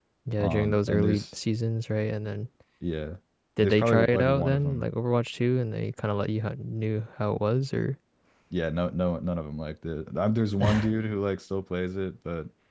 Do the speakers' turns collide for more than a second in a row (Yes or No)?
Yes